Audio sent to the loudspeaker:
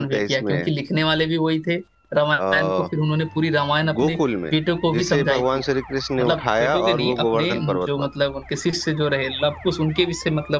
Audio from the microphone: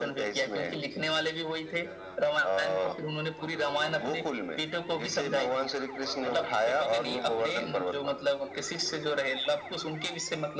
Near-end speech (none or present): present